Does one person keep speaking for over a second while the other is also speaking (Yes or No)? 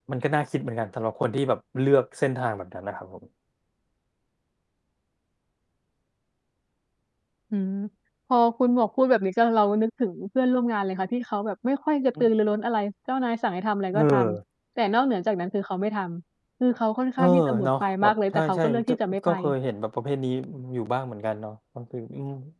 Yes